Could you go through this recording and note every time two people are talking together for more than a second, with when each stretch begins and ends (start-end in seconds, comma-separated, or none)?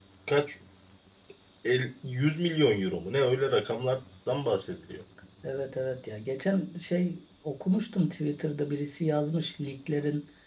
none